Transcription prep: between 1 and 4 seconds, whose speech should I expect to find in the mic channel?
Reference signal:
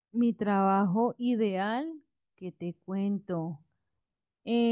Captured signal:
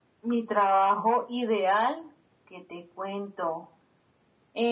echo only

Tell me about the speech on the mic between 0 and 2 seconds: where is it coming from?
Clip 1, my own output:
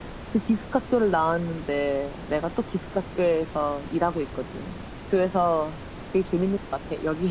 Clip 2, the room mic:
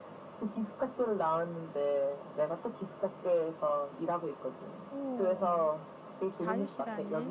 echo only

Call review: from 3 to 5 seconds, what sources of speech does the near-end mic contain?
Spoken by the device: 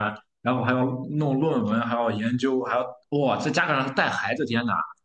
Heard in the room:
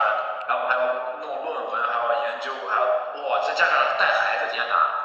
echo only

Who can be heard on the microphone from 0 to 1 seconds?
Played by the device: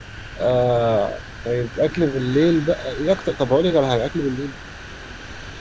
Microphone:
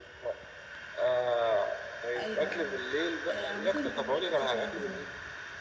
echo only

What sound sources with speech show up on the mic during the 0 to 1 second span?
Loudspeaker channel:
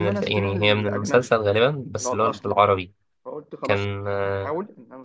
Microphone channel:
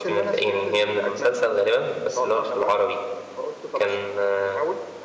echo only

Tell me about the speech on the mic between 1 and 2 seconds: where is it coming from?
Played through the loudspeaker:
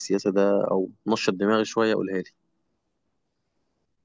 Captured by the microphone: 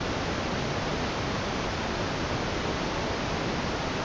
neither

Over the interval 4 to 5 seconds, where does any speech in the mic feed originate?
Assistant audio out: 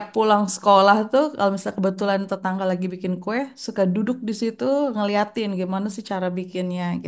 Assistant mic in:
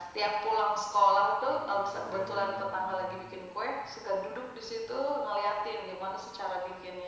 echo only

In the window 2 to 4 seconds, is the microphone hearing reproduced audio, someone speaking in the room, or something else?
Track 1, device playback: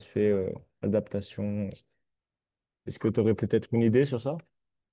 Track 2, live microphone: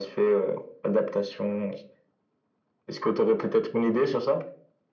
echo only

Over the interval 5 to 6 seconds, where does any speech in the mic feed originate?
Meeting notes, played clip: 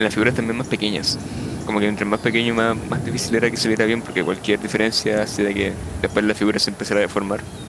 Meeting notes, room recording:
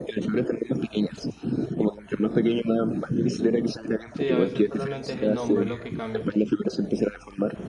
both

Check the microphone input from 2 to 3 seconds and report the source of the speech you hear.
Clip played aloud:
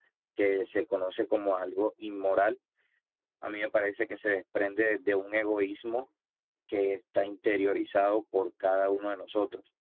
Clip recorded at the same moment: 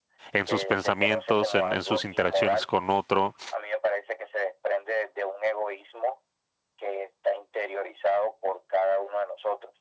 both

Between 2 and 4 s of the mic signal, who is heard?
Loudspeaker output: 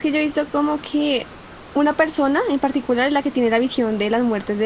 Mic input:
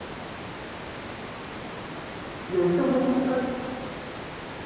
user only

